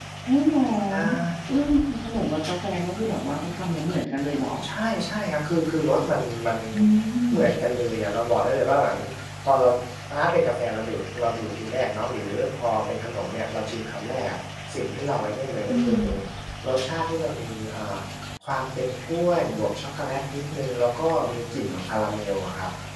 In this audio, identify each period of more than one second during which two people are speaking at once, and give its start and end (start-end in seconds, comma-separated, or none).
none